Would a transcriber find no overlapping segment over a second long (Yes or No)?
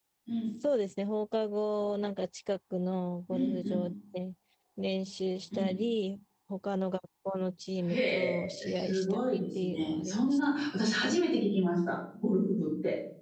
No